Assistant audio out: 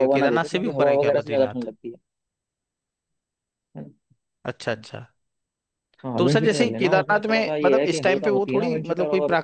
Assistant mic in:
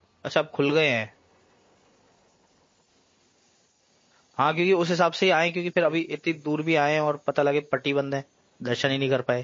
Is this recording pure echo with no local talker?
No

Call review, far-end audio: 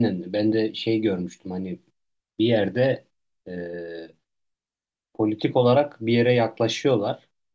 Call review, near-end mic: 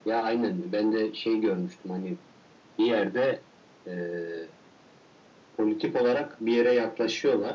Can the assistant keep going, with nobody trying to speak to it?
Yes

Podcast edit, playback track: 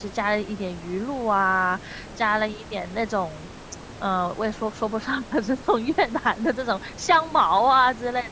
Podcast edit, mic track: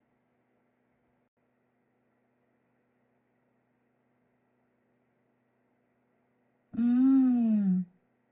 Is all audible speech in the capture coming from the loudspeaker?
No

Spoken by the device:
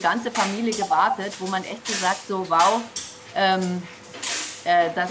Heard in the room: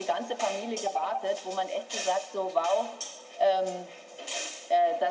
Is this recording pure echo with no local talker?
Yes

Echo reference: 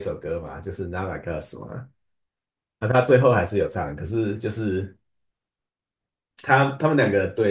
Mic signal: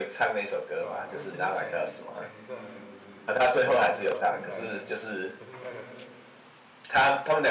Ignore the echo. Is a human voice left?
Yes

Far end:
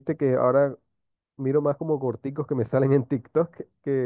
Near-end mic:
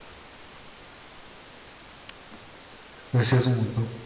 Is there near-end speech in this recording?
Yes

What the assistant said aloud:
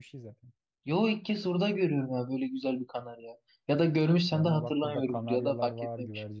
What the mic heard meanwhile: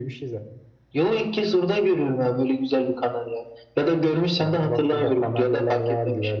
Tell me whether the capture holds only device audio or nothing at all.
Yes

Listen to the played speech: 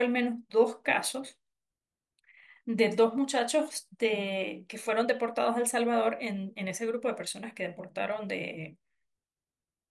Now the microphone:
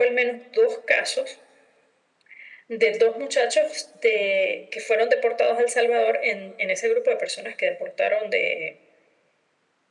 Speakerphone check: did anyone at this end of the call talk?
No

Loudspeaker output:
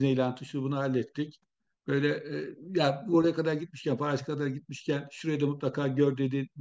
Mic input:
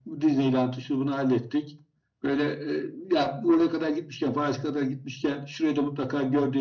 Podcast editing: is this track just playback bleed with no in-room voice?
Yes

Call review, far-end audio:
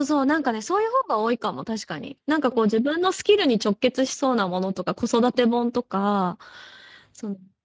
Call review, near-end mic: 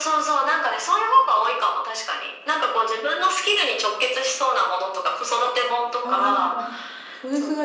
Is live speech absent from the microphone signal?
No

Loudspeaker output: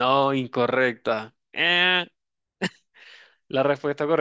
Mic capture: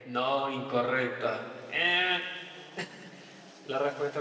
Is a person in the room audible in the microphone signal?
No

